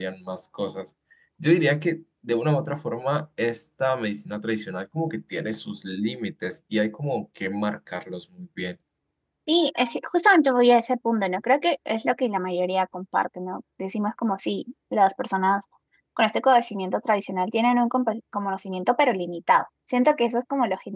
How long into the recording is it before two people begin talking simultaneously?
none

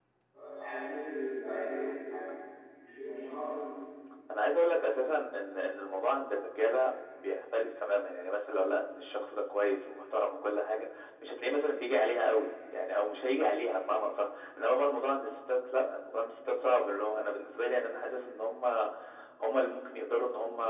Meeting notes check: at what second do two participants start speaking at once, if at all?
none

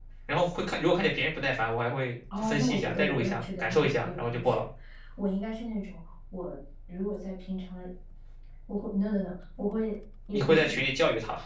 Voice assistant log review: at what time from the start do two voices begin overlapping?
2.4 s

